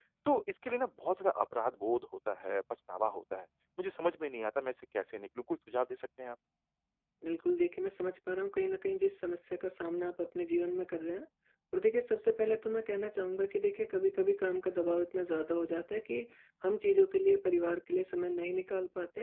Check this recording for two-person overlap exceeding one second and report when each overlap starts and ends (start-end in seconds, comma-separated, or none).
none